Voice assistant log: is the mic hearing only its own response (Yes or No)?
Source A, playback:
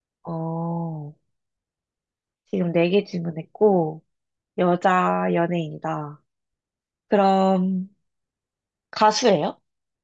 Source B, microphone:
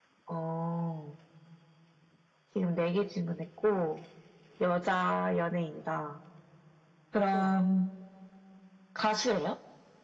No